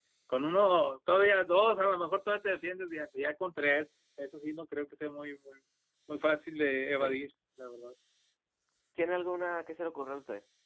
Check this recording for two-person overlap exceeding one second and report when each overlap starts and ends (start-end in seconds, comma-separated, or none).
none